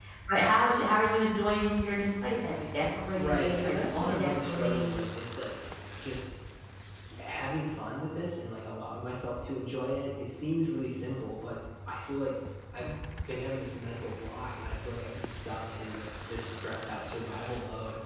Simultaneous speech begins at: 3.1 s

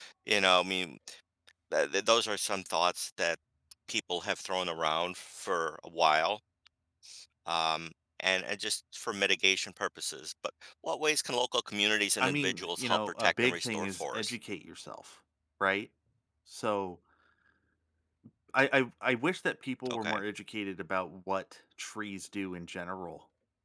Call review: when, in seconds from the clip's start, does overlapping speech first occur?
12.2 s

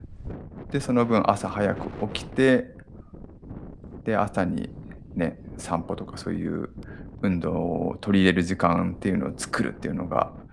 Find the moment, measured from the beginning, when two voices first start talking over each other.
none

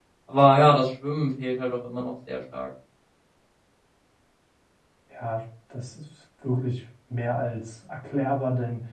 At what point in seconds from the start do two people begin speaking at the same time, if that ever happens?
none

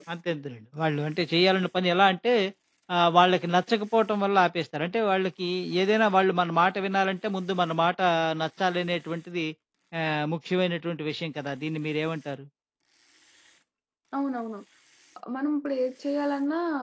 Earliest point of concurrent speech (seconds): none

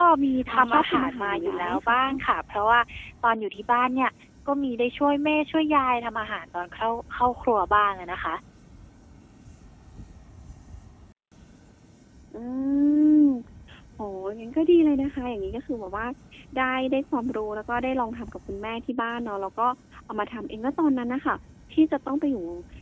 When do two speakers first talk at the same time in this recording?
0.5 s

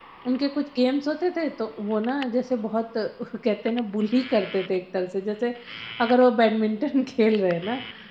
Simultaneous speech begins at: none

